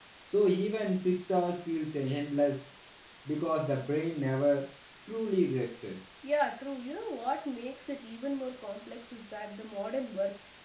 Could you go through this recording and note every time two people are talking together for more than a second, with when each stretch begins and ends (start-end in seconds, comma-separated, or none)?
none